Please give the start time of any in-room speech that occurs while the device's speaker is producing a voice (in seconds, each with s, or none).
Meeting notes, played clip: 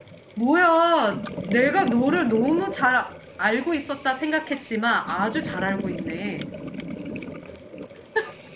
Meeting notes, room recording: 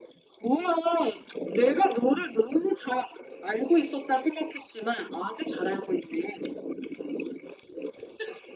none